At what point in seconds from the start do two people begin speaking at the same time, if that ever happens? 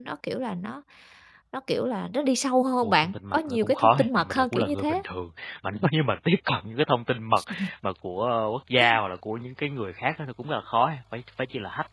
2.8 s

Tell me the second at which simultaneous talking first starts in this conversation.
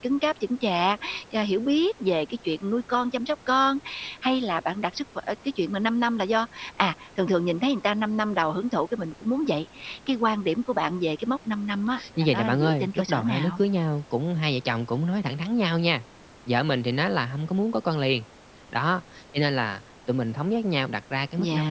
12.2 s

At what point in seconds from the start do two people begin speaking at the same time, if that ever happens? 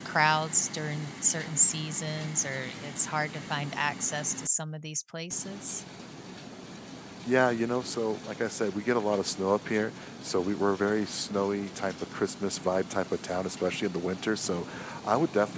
none

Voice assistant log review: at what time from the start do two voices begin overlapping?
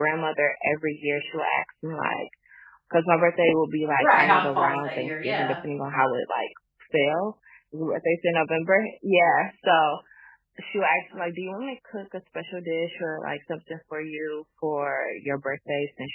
4.0 s

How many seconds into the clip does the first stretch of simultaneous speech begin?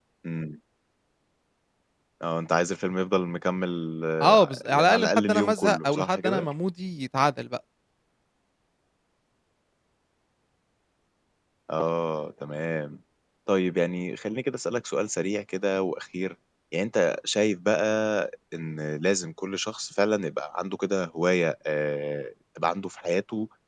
4.4 s

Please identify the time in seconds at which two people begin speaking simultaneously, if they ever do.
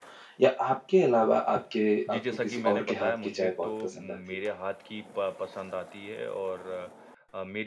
2.1 s

